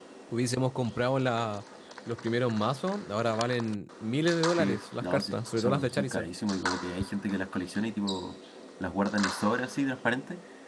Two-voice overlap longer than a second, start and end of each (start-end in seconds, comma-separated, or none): 4.6-6.3